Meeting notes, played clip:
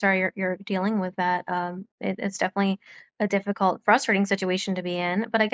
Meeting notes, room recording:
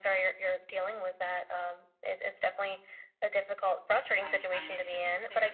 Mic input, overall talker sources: both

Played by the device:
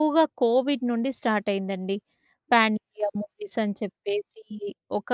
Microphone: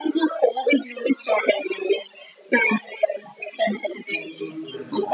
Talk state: both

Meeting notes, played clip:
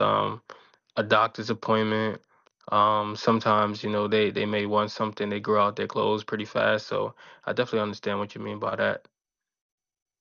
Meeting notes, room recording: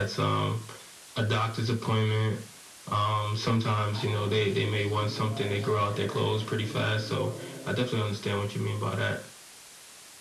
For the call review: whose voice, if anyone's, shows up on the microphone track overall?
both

